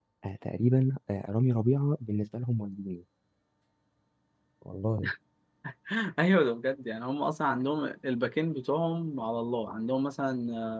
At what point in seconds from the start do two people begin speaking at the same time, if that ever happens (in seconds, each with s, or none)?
none